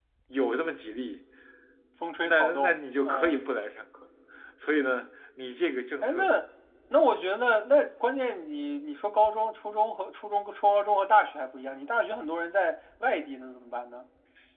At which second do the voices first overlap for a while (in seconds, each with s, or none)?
2.2 s